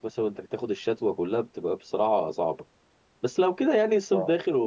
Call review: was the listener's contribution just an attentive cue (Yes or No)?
Yes